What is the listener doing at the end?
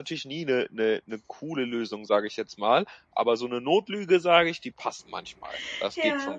taking over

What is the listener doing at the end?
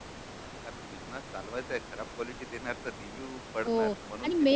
taking over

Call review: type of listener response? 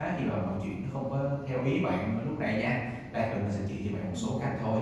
listening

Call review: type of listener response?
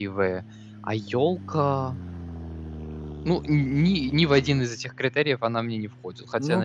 taking over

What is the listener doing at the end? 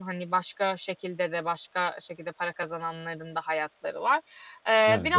listening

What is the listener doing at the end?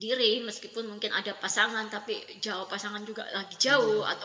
listening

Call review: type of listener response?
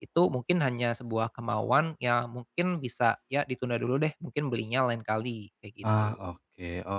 taking over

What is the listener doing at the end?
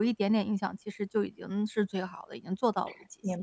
taking over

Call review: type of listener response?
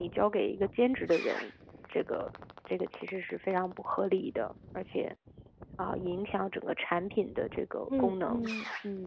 taking over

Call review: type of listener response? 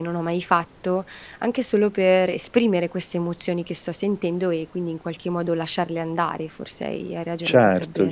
taking over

